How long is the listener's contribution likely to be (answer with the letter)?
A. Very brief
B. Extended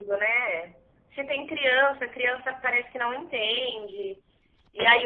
A